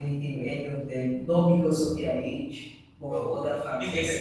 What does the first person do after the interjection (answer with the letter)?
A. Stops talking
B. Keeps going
A